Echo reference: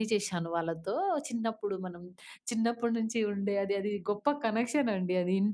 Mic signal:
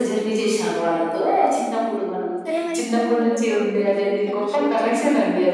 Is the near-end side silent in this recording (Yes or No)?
No